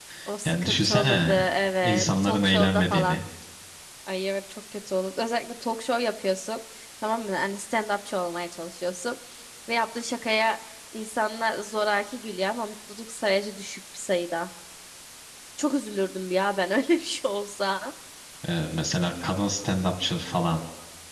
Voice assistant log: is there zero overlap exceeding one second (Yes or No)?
No